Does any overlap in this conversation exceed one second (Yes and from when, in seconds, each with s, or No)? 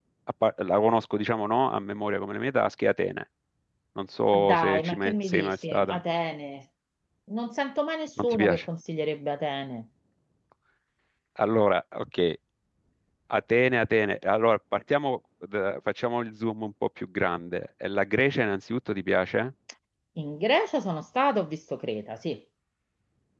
Yes, from 4.3 s